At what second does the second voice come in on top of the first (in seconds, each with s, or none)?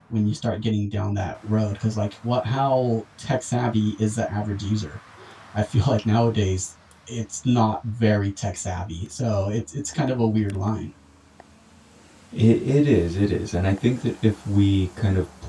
none